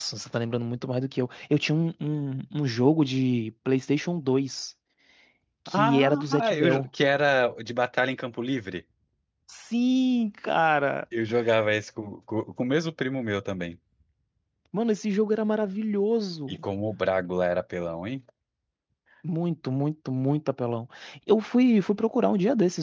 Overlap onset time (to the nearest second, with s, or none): 6 s